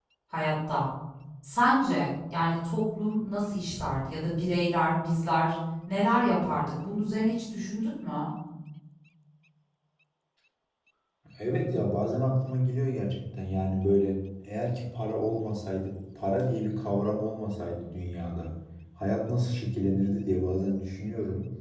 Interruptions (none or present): none